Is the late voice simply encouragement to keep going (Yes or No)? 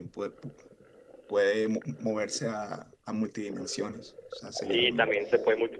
No